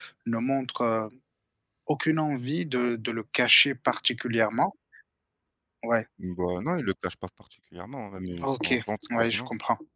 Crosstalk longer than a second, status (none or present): none